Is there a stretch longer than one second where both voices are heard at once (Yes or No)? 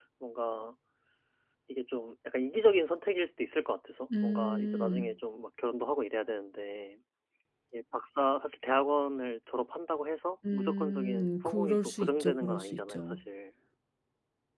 Yes